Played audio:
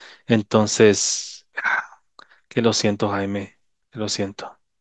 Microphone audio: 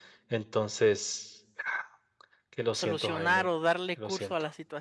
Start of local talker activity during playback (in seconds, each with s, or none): 2.7 s